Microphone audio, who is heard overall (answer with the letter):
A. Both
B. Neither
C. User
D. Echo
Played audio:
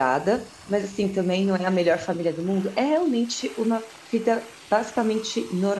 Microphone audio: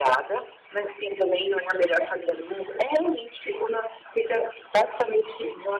D